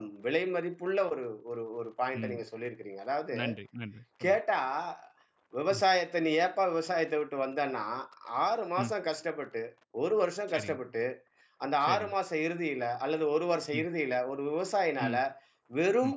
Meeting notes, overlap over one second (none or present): none